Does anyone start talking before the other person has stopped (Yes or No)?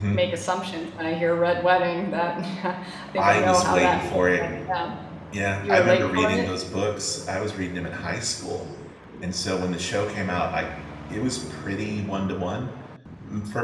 Yes